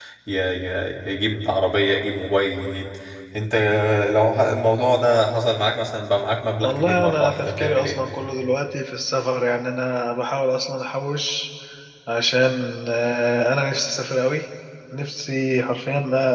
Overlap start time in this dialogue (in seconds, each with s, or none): 6.6 s